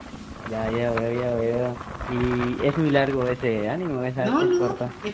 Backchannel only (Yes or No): No